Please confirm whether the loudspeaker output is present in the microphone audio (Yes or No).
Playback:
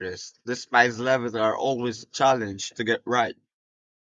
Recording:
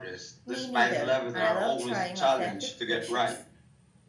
Yes